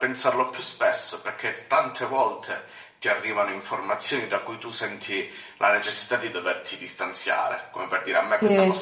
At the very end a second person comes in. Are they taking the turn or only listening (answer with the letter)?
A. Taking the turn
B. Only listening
B